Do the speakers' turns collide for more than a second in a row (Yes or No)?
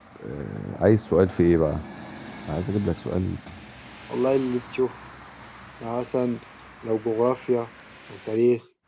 No